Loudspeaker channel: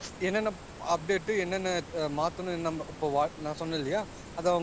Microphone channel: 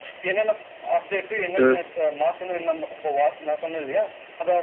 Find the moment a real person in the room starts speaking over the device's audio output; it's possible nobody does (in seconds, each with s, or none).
1.4 s